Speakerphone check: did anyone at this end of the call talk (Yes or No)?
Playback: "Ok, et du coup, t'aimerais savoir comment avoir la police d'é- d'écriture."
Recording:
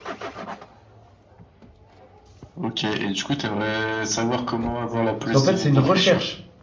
Yes